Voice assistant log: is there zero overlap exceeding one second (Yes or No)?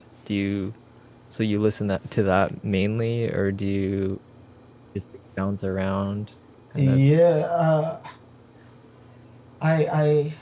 Yes